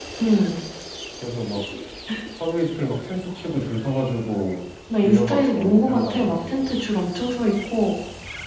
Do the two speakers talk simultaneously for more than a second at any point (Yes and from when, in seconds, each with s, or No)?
Yes, from 4.9 s